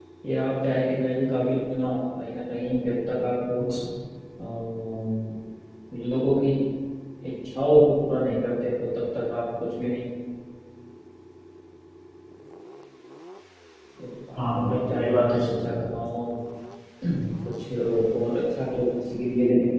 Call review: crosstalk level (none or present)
present